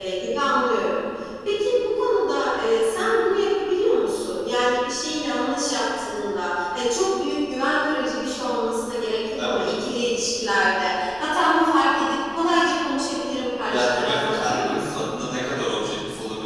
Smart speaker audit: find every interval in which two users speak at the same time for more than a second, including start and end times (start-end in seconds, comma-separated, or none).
13.7-15.1